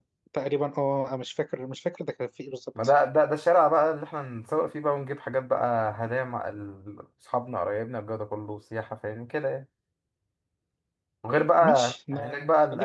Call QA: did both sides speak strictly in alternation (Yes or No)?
No